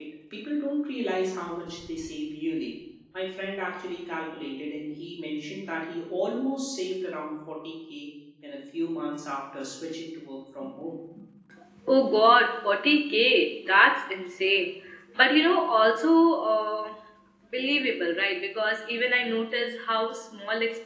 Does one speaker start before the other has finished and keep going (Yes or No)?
No